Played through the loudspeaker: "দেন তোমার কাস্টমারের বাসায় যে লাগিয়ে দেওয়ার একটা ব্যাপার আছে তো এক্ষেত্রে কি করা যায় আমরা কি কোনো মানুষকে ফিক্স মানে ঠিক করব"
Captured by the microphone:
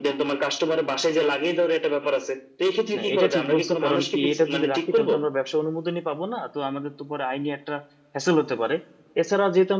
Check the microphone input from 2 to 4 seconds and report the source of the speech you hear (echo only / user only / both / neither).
both